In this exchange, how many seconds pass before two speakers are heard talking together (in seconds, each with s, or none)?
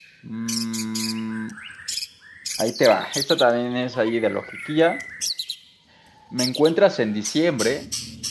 none